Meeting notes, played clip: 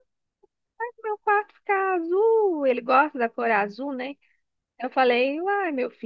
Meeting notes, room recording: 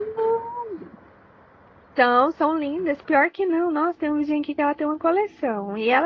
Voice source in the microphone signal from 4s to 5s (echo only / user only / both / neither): user only